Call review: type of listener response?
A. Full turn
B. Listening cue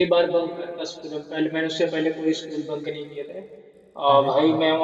B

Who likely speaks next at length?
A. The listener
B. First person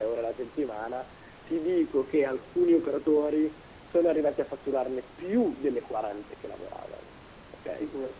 A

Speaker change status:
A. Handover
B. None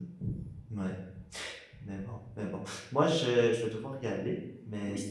B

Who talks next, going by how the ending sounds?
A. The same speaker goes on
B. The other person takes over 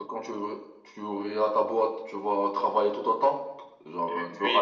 B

